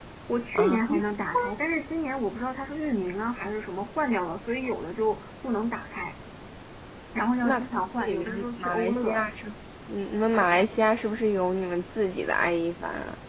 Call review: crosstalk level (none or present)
present